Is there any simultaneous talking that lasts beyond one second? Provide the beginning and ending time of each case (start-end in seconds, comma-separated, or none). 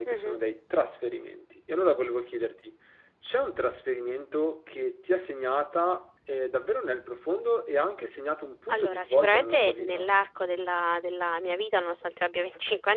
8.7-10.1